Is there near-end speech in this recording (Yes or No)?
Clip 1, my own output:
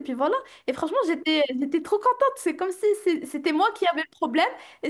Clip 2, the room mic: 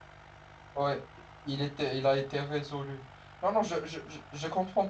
Yes